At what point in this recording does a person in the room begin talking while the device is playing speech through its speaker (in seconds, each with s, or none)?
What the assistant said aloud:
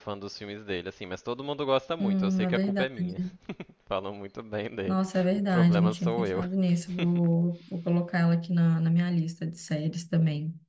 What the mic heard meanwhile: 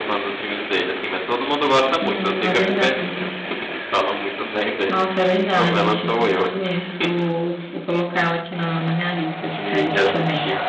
9.4 s